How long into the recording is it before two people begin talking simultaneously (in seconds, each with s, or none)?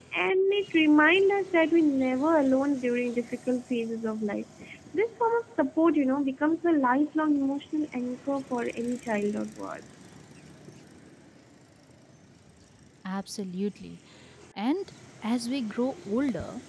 none